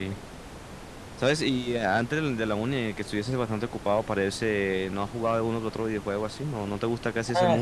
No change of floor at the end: No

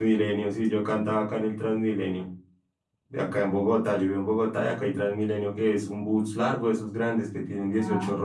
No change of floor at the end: Yes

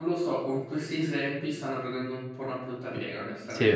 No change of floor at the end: Yes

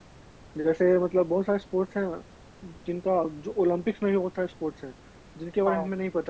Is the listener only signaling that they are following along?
Yes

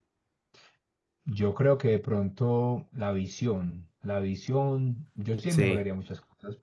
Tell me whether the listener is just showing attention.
Yes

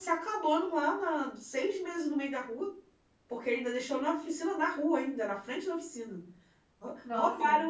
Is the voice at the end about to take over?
No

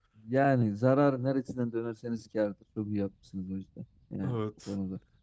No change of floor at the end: No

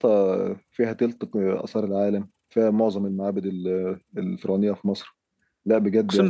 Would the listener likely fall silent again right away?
Yes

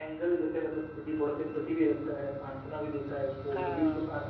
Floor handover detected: No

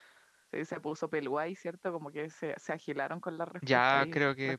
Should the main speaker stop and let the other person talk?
Yes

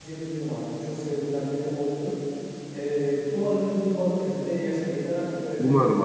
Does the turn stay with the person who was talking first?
No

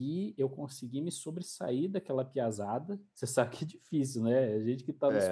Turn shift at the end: Yes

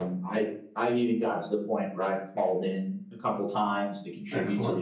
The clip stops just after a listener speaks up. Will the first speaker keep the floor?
Yes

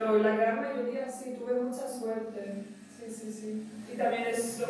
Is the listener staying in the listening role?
Yes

